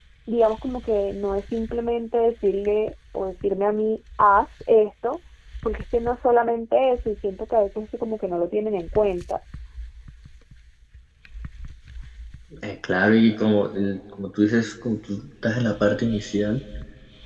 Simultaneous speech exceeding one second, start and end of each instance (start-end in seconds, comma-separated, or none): none